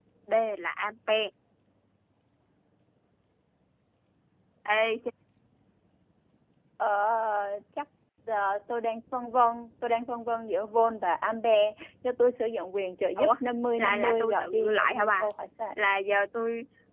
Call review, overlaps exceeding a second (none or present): present